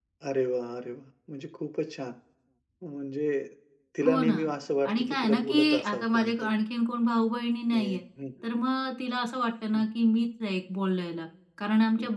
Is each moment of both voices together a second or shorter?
No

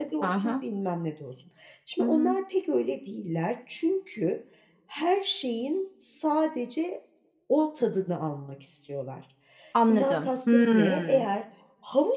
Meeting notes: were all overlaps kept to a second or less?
No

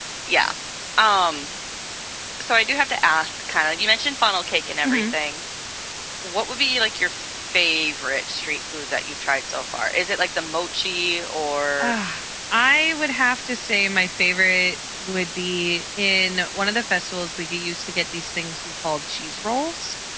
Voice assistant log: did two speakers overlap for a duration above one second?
No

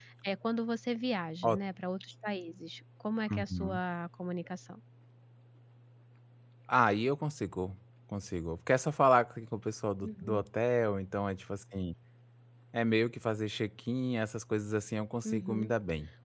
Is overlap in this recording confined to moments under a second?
Yes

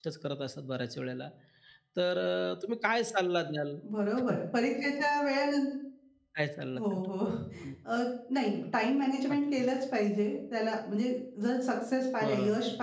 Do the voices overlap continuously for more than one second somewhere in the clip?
No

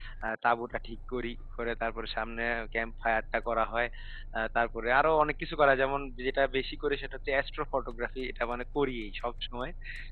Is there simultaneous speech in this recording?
No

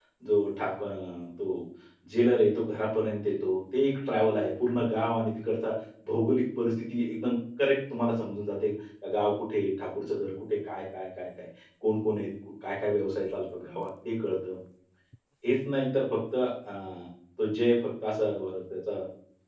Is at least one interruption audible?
No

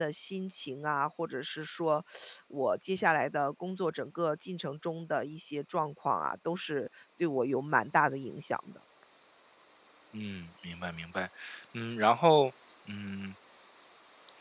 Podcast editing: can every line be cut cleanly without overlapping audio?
Yes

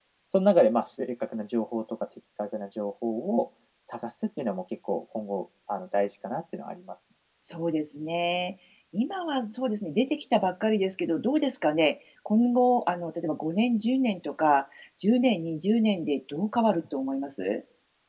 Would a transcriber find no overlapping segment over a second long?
Yes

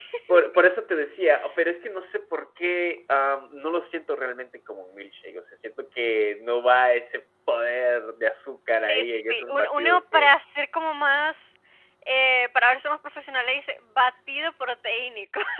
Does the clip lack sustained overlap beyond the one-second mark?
No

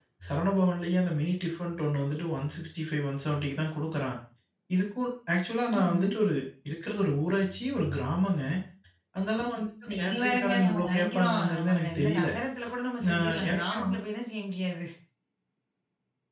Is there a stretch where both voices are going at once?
Yes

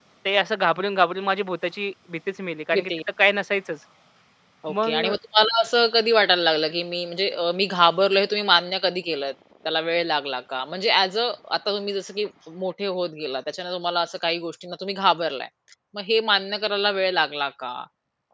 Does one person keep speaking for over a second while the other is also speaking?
No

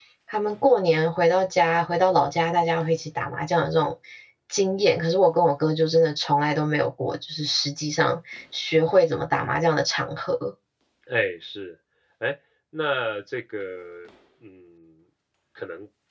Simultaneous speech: No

